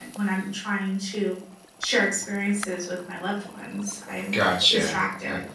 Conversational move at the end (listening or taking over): taking over